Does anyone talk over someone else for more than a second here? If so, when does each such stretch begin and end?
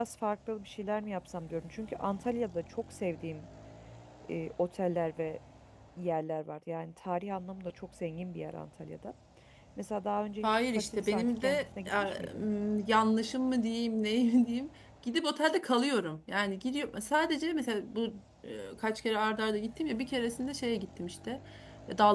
10.4-12.5

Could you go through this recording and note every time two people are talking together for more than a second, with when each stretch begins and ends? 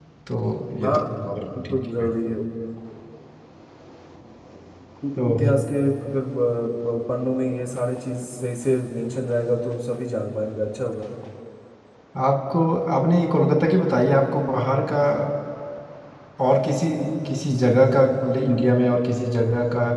0.8-2.1

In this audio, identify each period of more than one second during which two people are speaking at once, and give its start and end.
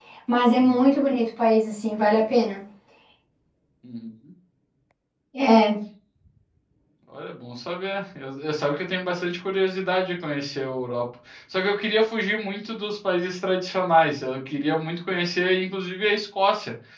none

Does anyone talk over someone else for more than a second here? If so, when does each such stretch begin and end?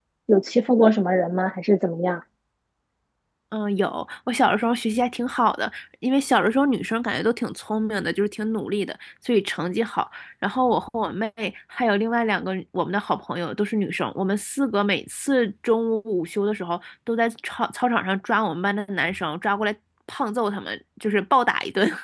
none

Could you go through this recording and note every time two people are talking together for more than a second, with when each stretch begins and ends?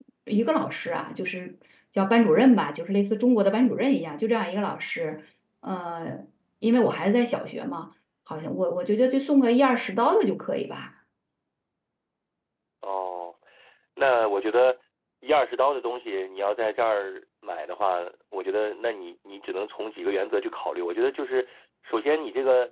none

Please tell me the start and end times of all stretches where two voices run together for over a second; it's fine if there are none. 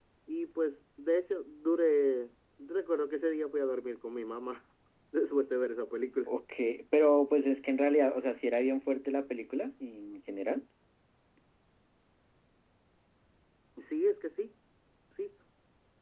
none

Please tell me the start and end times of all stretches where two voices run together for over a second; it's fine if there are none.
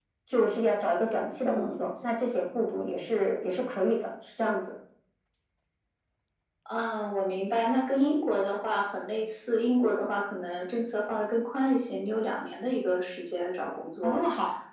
none

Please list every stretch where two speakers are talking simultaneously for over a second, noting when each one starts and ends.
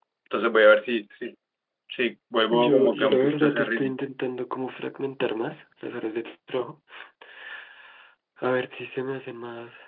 2.5-3.9

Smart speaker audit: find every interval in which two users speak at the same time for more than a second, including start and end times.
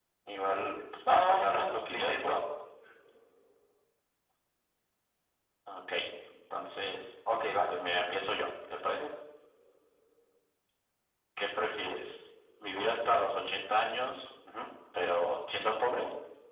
1.1-2.4

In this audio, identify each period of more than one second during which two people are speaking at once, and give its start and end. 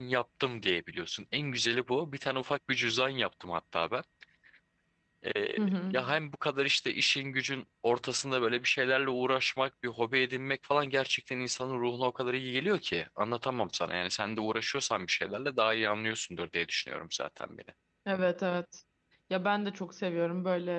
none

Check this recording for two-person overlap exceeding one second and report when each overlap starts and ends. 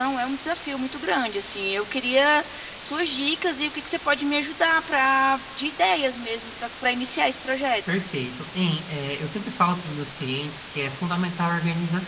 none

